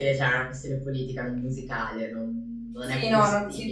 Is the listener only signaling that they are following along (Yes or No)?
No